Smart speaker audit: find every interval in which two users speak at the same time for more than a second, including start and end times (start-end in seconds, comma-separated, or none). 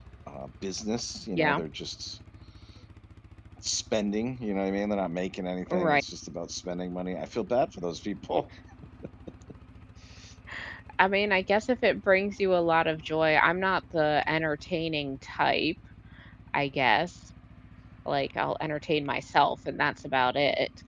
none